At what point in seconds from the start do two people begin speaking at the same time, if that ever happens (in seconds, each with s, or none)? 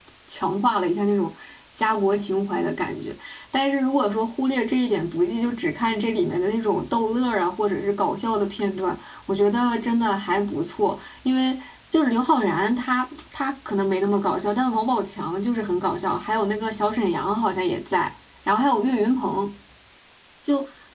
none